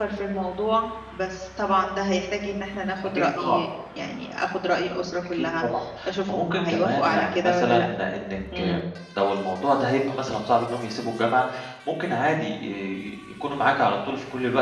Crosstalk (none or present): present